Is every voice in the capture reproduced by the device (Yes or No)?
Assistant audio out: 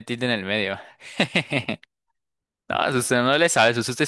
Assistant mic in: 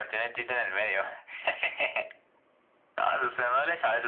Yes